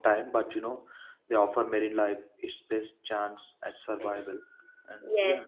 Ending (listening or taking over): taking over